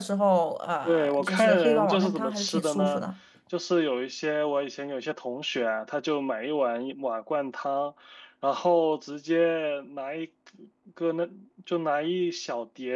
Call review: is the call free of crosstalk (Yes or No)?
No